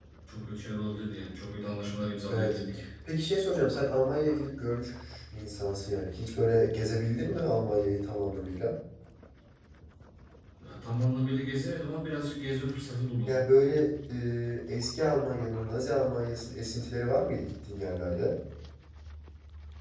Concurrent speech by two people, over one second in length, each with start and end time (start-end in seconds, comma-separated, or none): none